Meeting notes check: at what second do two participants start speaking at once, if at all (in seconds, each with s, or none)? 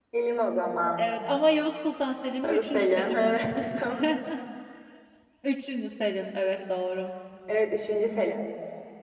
2.4 s